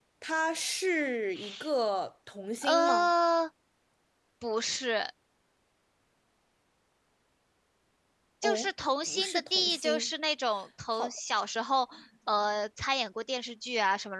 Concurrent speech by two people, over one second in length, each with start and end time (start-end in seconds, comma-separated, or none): 8.4-10.1